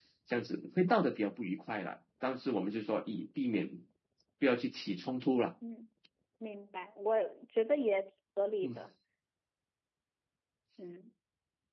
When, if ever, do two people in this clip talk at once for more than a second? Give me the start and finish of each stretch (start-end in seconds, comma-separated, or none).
none